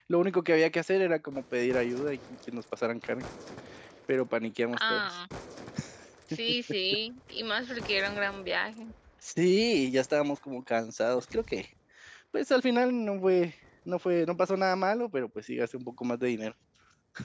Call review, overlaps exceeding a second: none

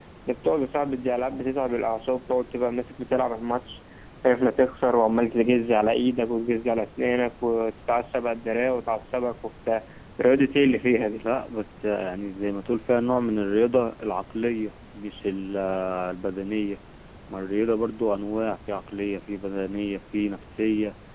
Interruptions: none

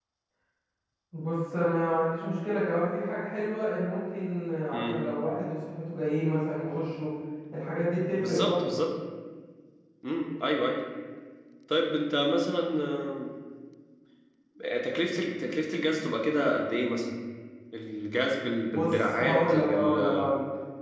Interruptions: present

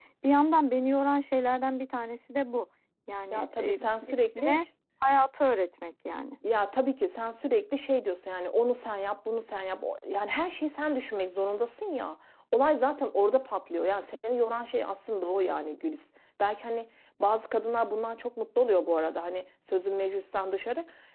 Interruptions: present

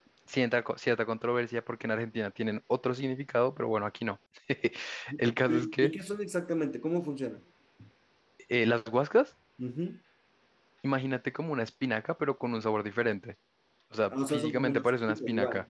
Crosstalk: present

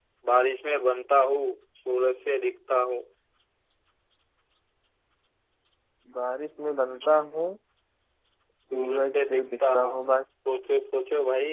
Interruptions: present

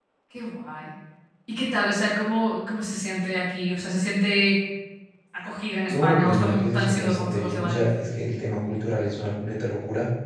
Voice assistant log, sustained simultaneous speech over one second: present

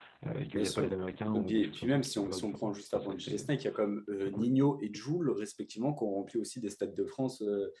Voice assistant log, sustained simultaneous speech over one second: present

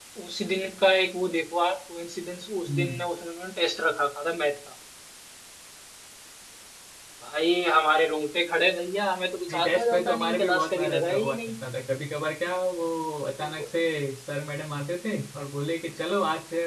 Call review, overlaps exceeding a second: present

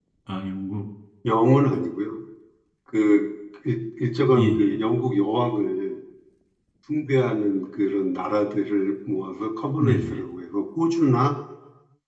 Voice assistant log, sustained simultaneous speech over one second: none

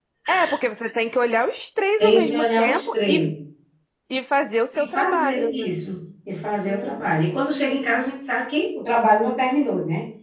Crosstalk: present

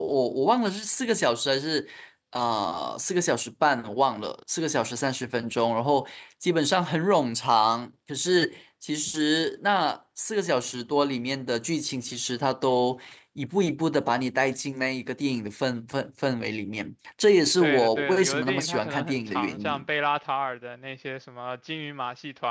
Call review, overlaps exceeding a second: present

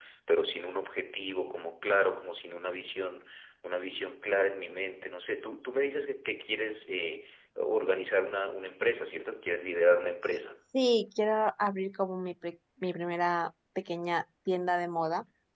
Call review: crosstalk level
none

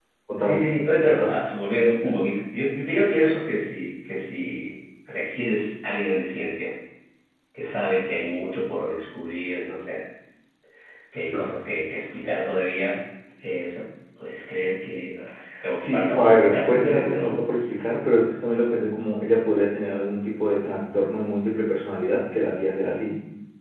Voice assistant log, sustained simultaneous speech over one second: present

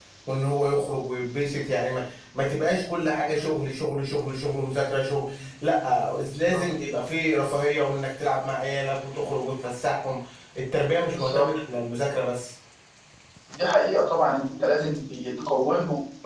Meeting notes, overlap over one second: none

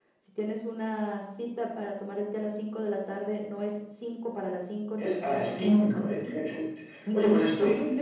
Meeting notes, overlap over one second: present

